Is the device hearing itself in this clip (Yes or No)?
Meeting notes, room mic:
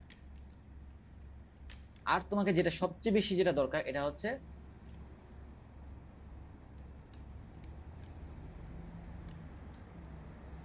No